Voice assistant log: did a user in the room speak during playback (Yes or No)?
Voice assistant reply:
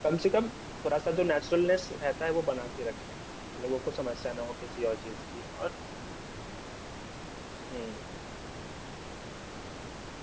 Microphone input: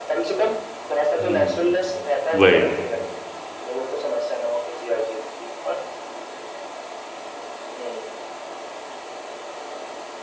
Yes